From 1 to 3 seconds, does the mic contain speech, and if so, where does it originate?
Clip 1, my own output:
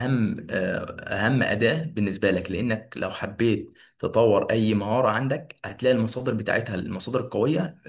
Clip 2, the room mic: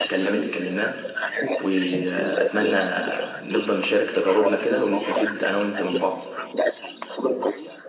both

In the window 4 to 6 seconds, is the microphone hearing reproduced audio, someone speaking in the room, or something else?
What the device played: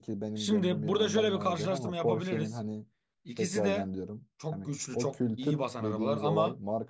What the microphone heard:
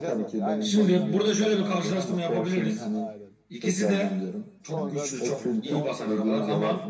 both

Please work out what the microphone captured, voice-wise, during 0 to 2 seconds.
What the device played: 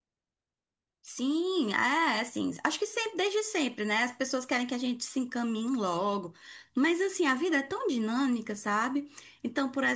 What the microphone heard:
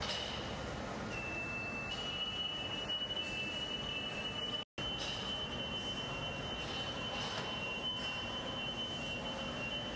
neither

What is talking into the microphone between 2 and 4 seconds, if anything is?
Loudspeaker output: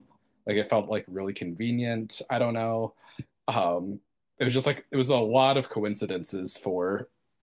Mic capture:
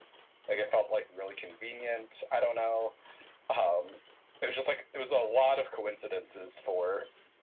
echo only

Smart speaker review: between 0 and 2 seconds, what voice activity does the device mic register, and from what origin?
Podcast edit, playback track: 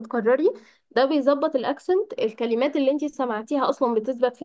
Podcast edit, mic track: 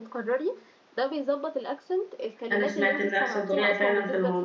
echo only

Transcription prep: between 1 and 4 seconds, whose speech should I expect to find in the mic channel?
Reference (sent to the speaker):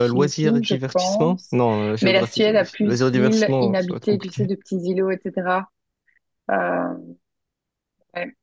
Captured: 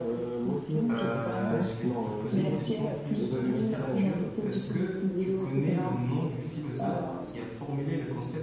both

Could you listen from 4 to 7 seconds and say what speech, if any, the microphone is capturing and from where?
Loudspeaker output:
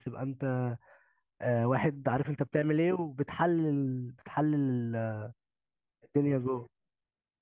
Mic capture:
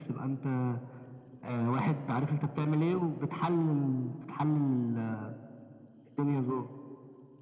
echo only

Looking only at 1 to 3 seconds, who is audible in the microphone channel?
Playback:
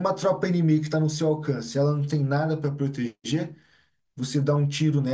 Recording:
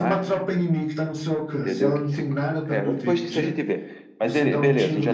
both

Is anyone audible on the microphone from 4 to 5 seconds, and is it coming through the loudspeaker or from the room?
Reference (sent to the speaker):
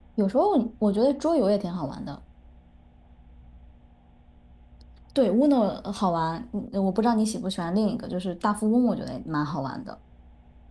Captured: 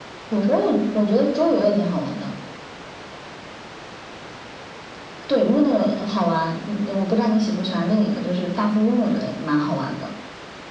neither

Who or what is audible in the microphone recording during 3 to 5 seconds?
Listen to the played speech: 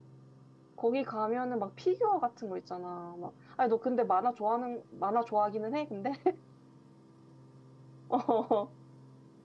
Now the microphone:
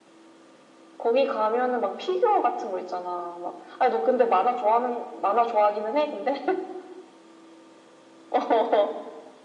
echo only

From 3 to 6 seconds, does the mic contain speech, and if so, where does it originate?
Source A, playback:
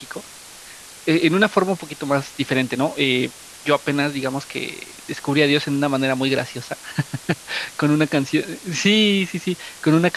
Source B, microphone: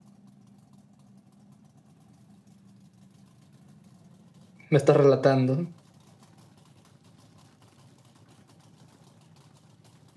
user only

